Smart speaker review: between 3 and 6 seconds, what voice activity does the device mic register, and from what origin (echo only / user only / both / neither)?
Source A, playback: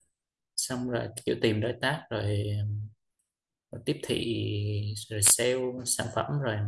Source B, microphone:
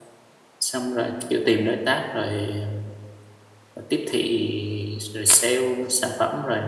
echo only